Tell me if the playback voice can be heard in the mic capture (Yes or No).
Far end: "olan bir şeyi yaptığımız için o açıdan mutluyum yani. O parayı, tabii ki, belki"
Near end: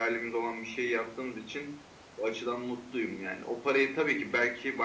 Yes